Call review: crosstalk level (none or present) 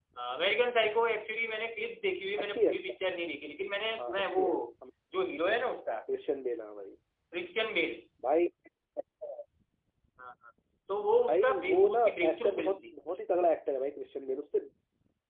present